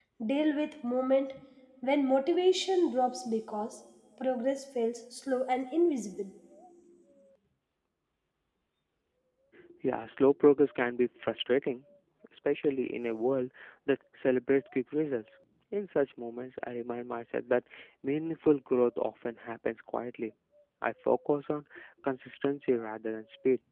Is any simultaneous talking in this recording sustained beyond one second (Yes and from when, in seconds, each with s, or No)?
No